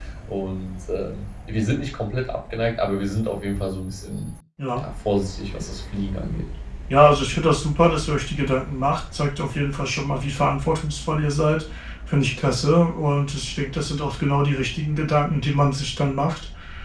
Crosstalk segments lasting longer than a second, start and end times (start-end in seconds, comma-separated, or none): none